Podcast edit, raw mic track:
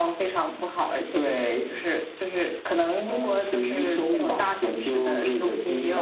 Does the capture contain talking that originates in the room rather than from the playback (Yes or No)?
No